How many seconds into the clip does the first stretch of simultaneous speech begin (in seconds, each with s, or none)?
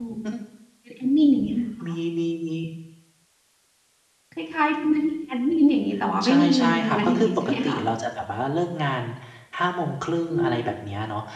6.2 s